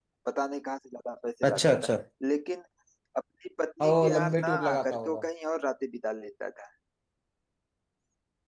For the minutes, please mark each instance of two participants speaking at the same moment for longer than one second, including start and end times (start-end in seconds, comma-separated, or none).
3.8-5.2